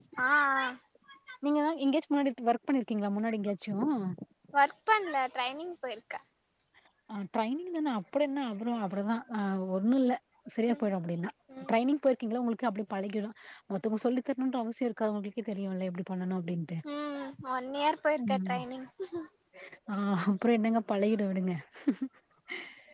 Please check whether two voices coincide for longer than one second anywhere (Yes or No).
No